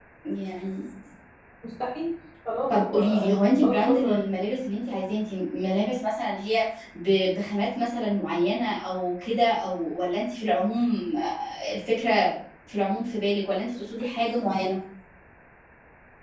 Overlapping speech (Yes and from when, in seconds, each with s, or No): Yes, from 2.7 s